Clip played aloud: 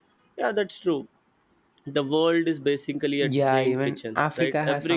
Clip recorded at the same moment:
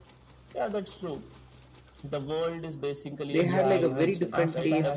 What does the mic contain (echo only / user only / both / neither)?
both